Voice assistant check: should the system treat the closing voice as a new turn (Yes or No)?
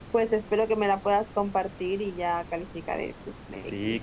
Yes